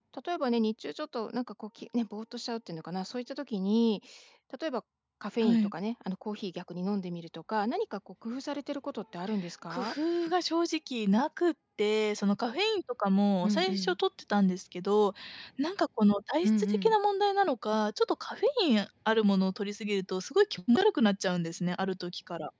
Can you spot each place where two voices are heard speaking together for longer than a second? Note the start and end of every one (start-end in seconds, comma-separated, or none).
none